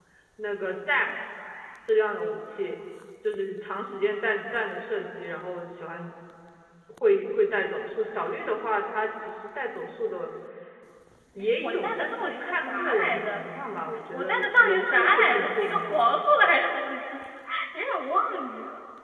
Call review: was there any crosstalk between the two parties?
Yes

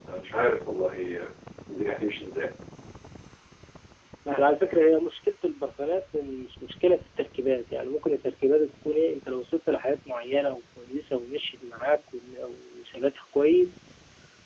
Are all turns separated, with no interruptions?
Yes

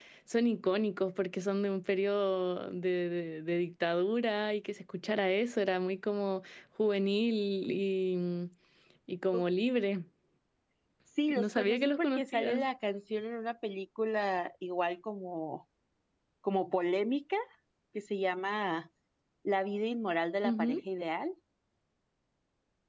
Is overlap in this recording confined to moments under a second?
No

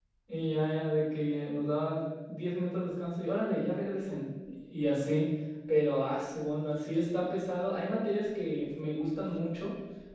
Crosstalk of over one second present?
No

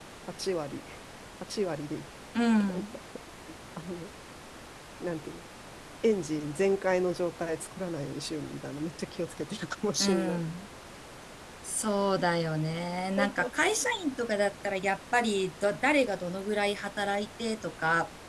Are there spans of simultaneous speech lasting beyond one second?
No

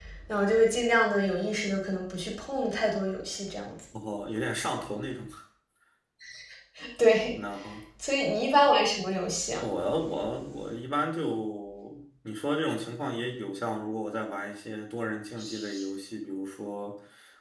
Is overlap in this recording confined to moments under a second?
Yes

